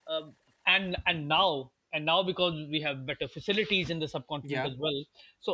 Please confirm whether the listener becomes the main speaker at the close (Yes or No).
No